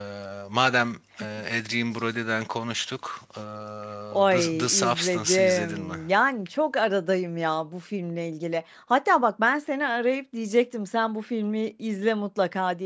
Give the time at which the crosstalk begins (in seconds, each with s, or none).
4.3 s